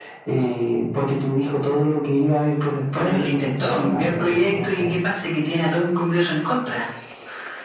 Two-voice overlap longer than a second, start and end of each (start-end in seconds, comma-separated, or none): 2.9-5.0